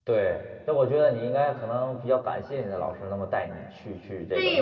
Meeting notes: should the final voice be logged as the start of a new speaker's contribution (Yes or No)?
Yes